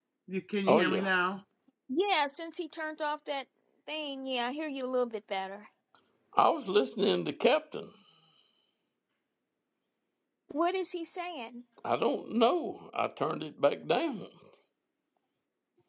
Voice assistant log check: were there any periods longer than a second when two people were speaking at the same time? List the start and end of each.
none

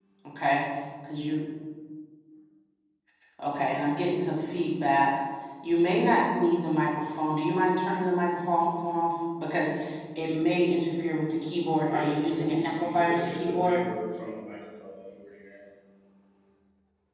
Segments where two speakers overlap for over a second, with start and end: 11.9-13.8

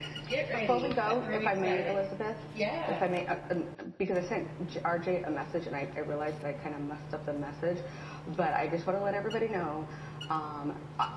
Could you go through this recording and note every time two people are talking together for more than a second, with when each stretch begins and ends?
0.5-2.1

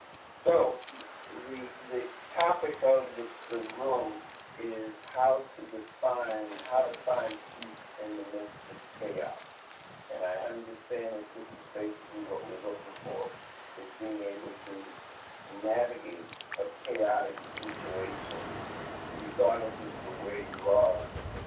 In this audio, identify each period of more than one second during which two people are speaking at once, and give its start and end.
none

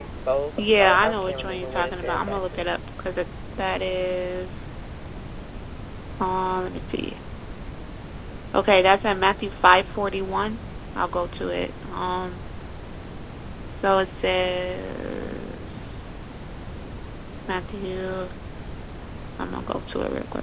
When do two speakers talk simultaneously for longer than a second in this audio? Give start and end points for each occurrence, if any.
0.6-2.6

